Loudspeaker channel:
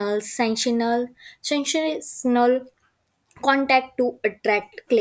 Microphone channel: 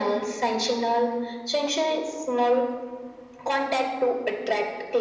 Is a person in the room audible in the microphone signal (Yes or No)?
No